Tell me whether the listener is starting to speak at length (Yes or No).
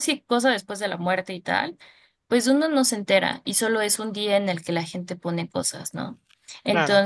No